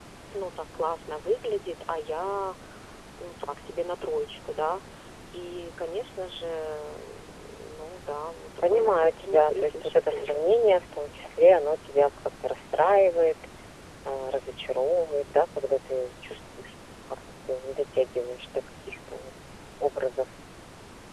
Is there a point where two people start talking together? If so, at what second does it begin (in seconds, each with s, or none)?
8.6 s